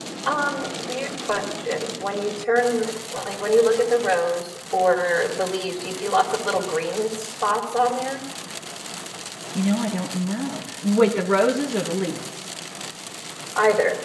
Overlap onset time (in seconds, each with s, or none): none